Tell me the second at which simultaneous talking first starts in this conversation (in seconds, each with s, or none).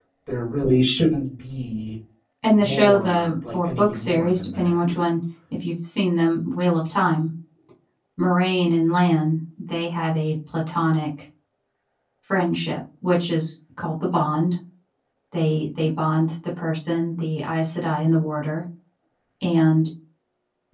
2.5 s